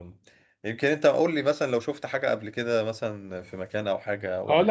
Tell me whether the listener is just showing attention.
No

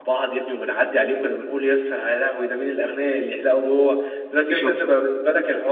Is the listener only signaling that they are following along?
Yes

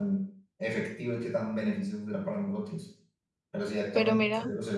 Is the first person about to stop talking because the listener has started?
No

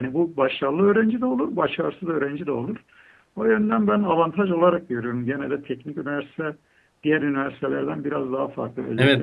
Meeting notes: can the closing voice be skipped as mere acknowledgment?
No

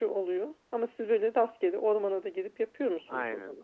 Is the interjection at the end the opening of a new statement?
Yes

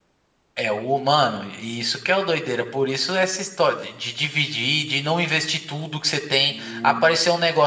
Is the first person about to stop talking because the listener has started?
No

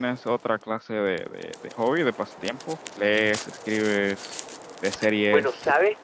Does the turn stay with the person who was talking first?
No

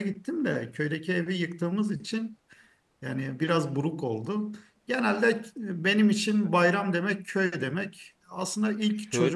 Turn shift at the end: No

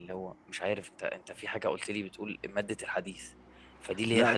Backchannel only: Yes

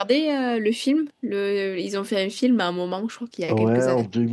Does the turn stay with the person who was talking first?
No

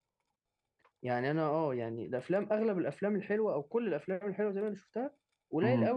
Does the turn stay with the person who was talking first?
Yes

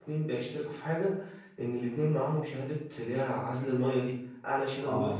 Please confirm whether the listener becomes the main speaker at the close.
No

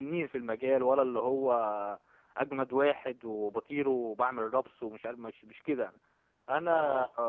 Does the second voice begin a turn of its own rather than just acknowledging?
No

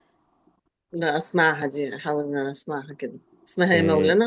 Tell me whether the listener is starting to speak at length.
Yes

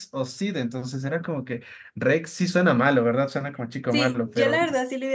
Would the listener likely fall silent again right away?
No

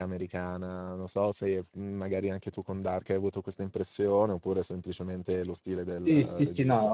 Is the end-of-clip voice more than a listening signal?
Yes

